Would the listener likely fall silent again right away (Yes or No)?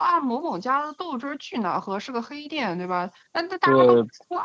Yes